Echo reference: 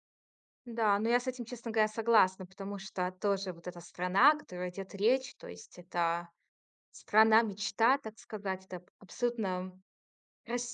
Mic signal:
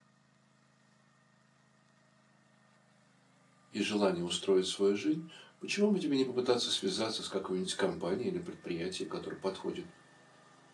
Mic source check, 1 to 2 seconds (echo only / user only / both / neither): neither